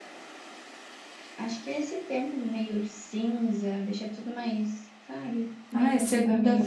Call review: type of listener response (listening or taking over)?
taking over